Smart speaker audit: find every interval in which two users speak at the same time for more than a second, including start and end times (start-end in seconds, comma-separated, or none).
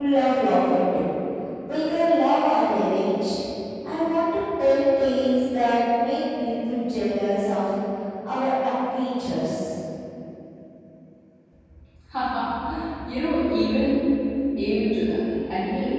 none